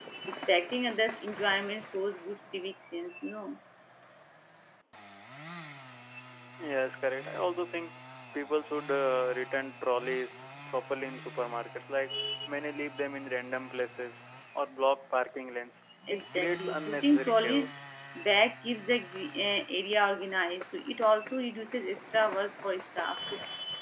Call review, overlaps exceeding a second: present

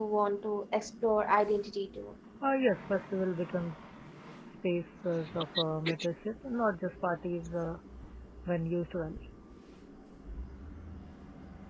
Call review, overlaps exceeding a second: none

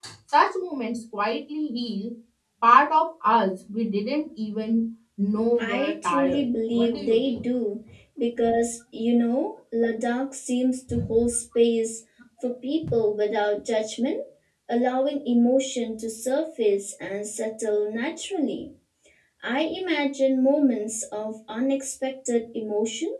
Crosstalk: present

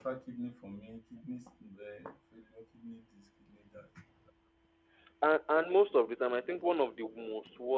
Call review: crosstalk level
none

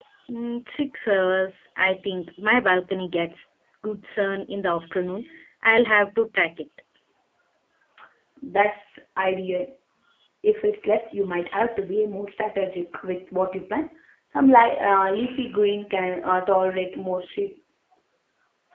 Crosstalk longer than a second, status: none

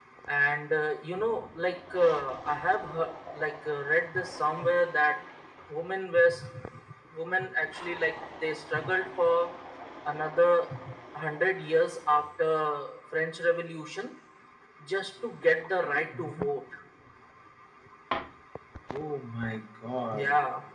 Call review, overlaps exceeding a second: none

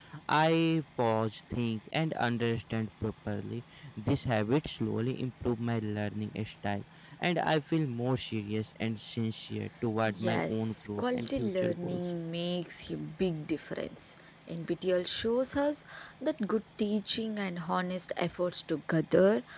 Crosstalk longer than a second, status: present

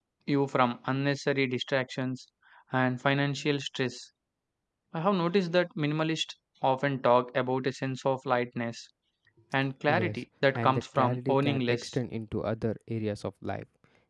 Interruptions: present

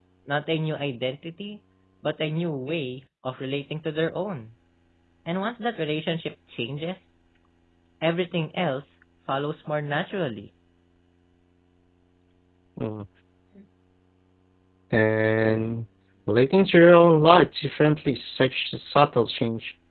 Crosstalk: none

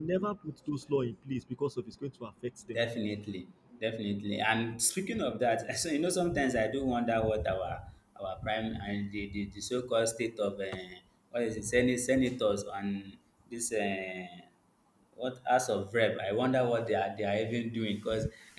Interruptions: none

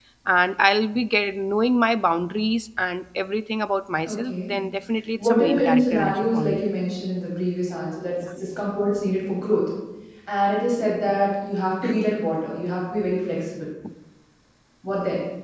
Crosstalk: present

